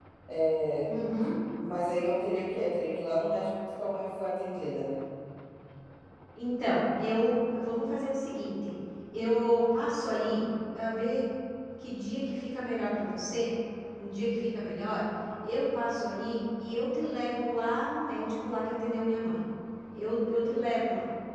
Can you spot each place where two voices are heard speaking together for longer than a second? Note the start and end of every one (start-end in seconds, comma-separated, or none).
none